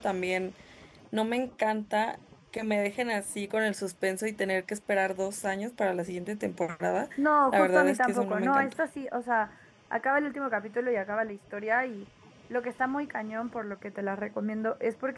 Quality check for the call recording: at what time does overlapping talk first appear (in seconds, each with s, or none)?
7.5 s